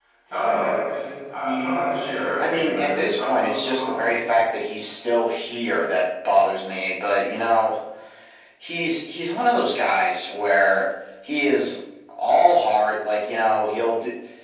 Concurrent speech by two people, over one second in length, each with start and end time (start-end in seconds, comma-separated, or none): 2.4-3.8